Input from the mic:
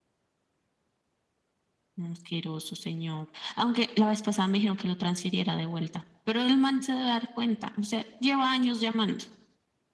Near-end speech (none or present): none